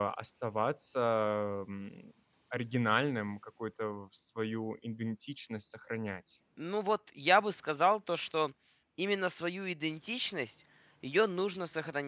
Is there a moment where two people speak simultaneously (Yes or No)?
No